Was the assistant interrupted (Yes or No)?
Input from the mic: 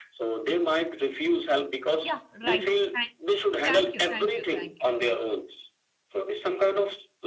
Yes